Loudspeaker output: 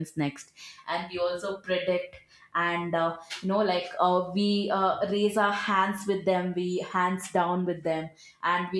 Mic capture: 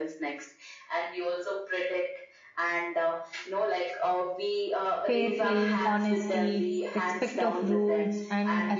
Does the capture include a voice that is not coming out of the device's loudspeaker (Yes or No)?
Yes